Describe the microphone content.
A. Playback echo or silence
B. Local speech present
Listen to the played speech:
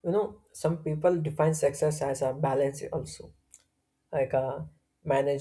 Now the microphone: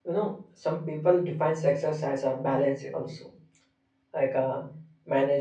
A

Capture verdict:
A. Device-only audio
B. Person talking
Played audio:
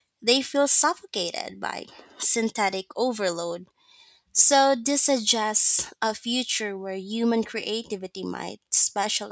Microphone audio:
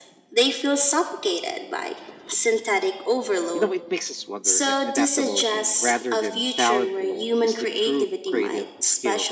B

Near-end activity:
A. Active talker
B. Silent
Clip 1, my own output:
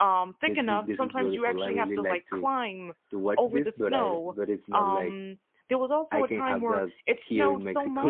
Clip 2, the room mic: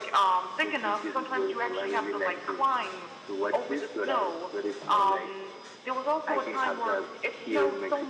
B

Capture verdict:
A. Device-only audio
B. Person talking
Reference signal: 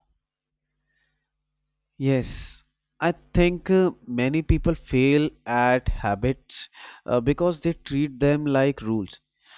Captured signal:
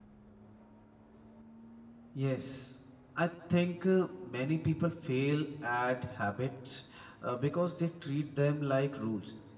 A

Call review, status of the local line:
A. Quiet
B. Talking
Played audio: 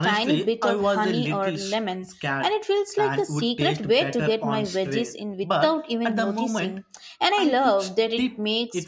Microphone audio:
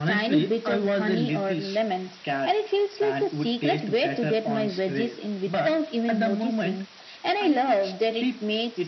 A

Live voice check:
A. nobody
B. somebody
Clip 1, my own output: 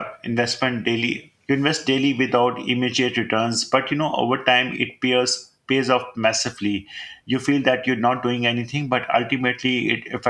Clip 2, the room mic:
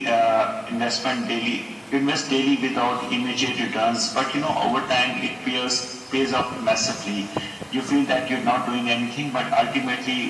A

